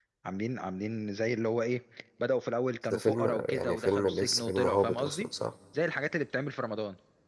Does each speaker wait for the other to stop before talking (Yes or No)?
No